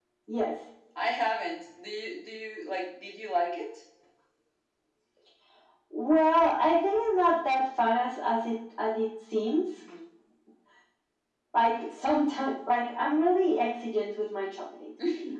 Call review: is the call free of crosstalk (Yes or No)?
Yes